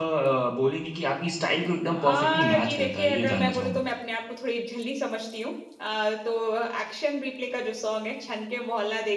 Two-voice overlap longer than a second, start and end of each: 1.9-3.8

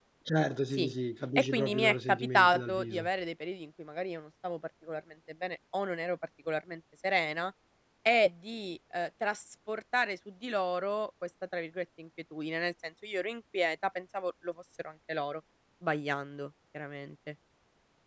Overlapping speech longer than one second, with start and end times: 1.4-3.1

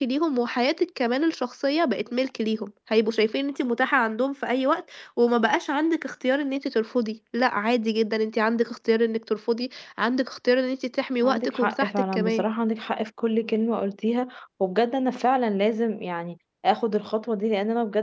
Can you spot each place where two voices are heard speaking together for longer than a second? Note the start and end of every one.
11.2-12.4

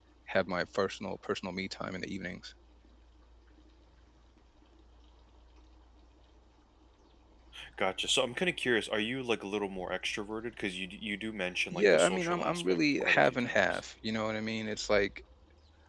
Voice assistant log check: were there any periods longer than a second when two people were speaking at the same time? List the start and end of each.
11.7-13.8

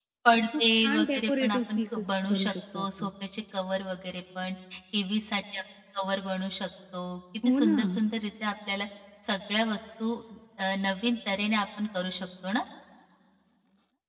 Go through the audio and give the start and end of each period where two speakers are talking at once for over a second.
0.6-3.1

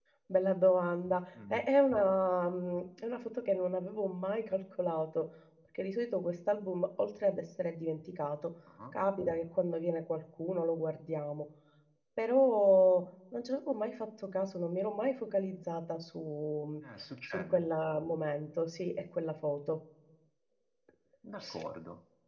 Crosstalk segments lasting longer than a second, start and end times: none

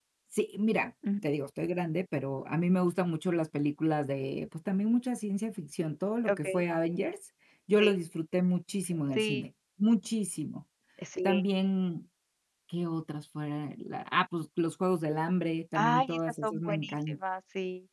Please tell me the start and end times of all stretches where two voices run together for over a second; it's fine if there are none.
15.7-17.1

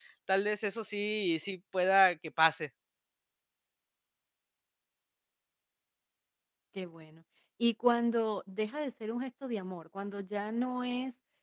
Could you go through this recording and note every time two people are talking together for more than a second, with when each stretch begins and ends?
none

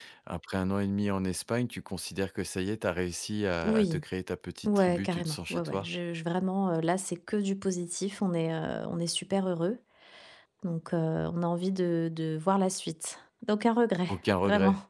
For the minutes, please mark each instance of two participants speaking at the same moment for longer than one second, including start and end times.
4.7-5.9

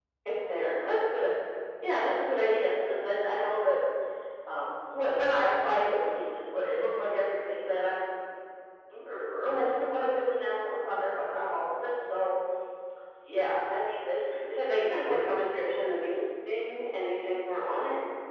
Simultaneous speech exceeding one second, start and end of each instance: 14.5-15.8

